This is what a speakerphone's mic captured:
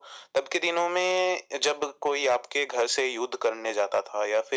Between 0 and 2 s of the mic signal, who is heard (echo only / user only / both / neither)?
echo only